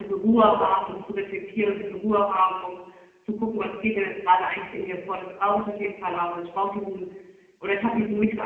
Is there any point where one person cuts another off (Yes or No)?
No